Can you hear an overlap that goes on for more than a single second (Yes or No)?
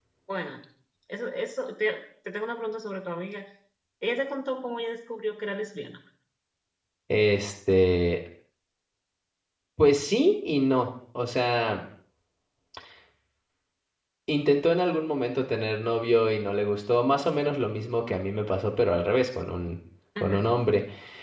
No